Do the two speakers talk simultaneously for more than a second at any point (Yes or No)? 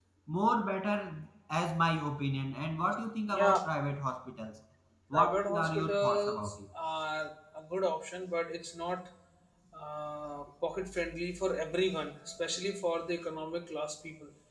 Yes